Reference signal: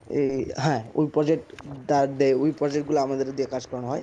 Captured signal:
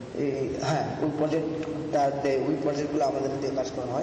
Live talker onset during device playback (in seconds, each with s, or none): none